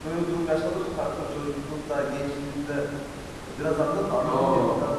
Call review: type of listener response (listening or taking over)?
taking over